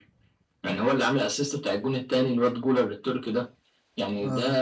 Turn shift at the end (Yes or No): No